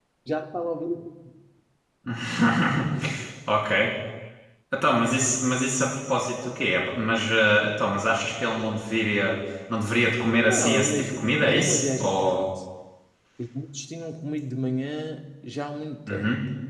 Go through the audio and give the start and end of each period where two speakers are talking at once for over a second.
10.5-12.5

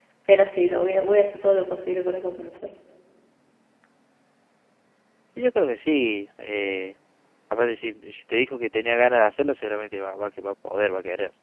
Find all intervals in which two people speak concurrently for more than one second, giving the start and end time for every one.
none

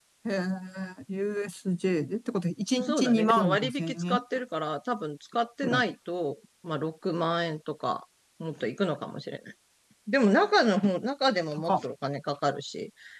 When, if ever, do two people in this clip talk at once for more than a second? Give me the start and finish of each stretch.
2.8-4.2

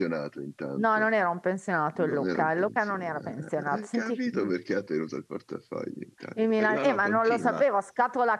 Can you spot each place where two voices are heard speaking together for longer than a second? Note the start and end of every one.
2.0-4.5, 6.4-7.6

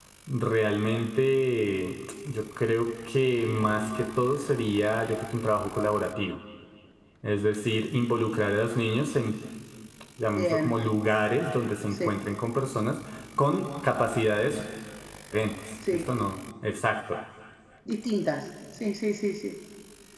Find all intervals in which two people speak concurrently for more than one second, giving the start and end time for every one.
none

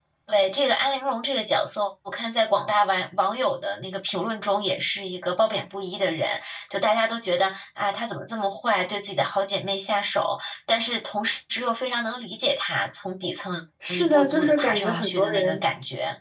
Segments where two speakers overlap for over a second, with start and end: 13.9-15.6

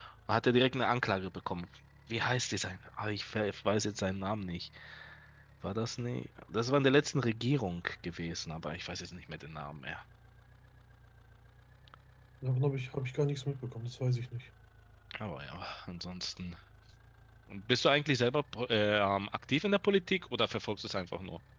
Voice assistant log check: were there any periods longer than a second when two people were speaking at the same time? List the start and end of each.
none

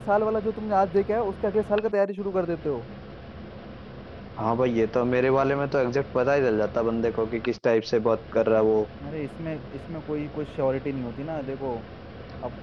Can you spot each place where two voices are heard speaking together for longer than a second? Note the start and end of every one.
none

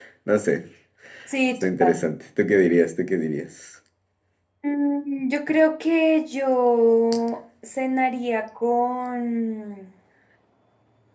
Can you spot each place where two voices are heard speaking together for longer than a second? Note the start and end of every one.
none

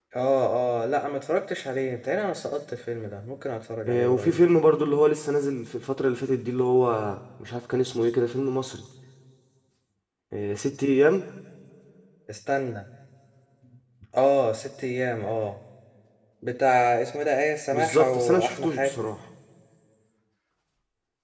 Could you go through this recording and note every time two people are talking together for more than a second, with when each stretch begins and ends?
17.7-19.1

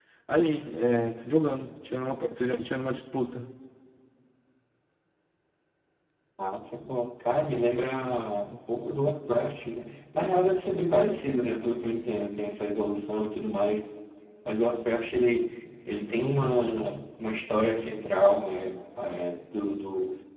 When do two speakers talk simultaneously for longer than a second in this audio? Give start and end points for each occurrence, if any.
none

